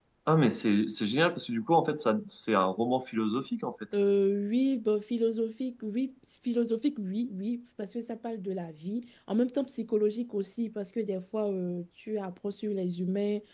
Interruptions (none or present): none